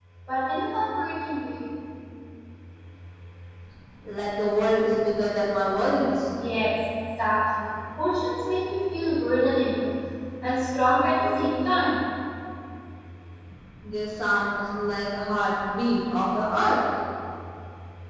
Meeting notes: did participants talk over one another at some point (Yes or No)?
No